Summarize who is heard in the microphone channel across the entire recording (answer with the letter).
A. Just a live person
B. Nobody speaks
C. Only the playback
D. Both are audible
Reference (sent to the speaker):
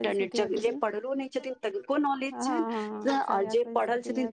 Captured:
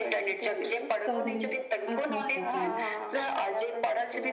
D